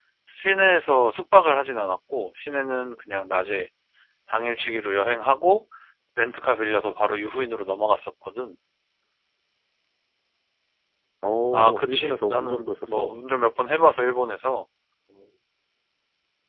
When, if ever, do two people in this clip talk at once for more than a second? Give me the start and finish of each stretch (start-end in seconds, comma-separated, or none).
11.5-13.1